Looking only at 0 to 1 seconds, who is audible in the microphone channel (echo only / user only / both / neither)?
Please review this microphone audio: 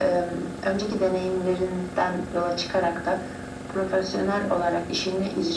echo only